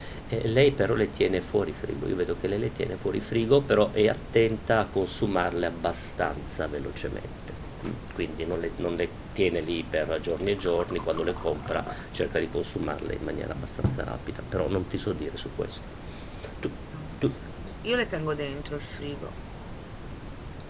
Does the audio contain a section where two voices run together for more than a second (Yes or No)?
No